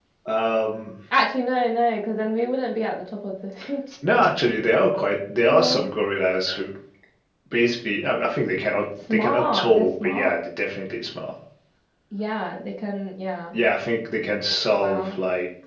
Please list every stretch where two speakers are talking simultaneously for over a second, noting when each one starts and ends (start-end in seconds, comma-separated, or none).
9.1-10.3